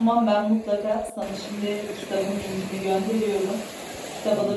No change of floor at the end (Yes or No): Yes